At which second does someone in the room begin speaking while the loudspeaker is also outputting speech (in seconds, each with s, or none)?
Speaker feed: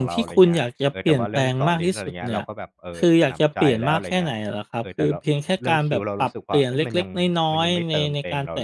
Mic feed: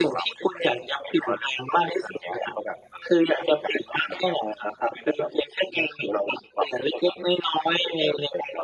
none